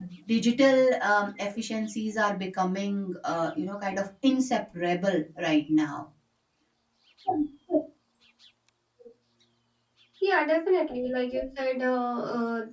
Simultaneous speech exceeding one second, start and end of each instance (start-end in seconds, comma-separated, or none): none